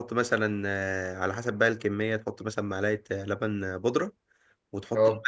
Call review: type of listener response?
listening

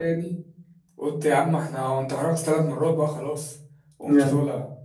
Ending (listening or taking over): taking over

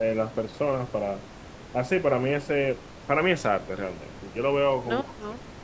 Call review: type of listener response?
taking over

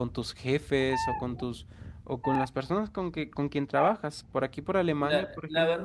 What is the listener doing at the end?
taking over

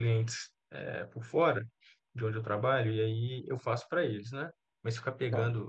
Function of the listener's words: listening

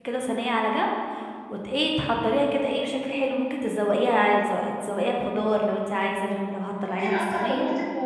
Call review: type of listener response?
taking over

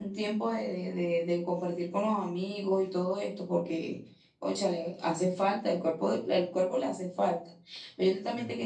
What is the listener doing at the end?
listening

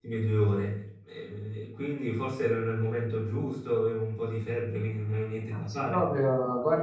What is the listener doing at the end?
taking over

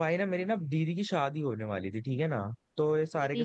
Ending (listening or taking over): listening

